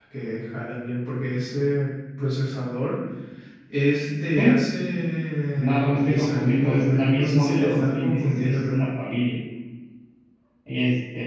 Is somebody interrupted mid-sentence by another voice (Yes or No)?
Yes